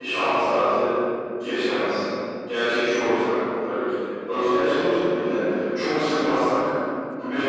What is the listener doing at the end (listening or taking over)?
taking over